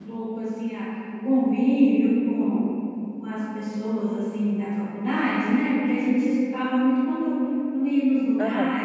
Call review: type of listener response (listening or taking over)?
listening